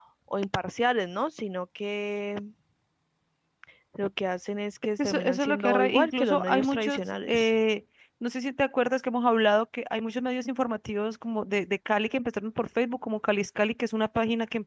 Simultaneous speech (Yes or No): Yes